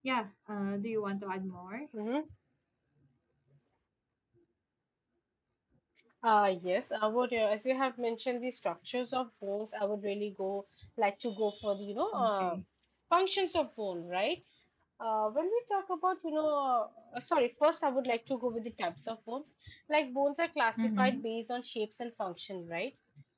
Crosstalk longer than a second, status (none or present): none